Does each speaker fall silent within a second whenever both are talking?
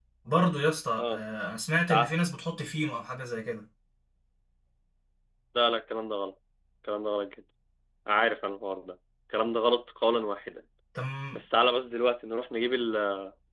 Yes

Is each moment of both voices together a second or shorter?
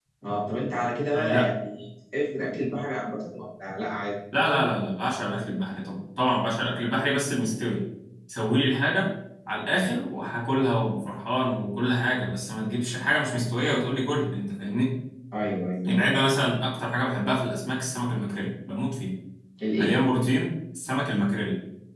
Yes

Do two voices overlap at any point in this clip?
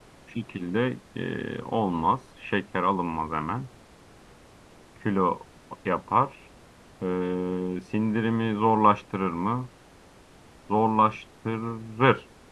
No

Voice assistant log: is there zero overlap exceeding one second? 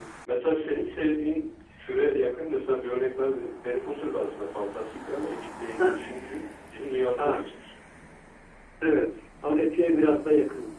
Yes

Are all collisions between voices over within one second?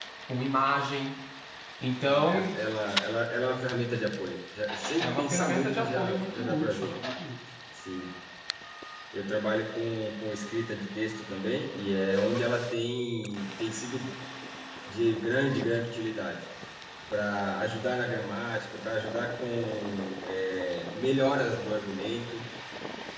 No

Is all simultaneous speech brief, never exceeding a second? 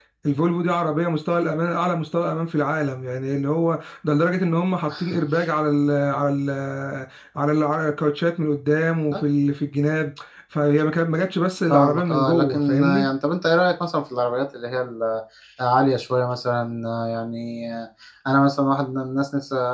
No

